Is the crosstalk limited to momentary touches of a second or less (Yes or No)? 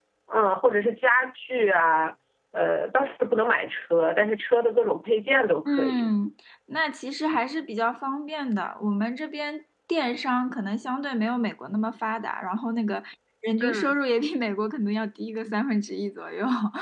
Yes